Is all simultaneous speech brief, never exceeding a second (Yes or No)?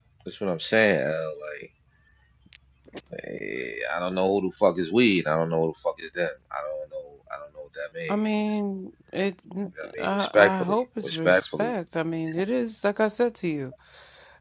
No